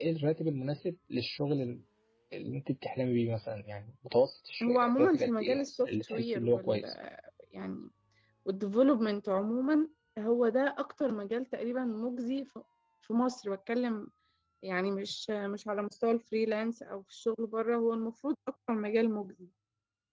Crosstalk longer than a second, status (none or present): present